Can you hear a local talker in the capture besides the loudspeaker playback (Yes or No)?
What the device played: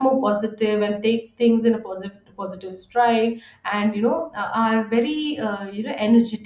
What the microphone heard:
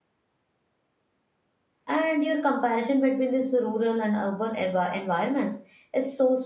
Yes